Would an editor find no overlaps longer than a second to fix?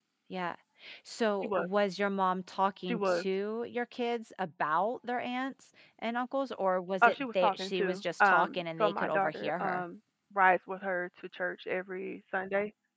No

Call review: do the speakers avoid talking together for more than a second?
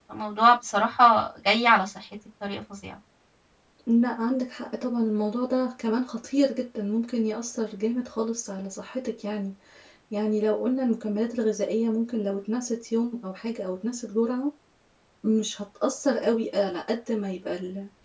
Yes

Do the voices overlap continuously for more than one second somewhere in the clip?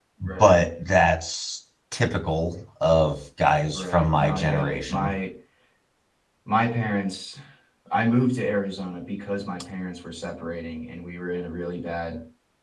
Yes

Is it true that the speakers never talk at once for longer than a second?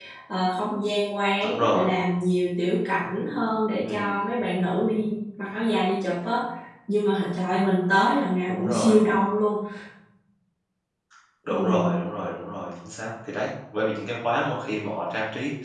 Yes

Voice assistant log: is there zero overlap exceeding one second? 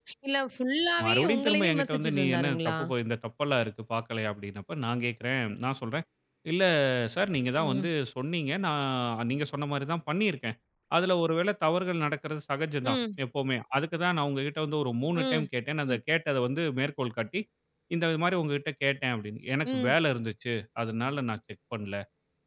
No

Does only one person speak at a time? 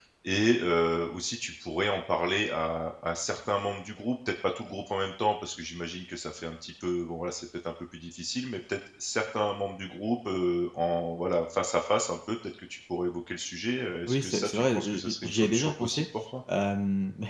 No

